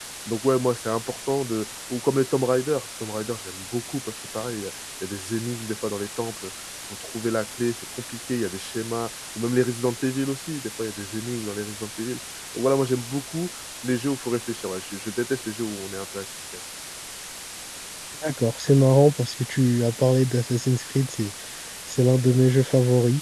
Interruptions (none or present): none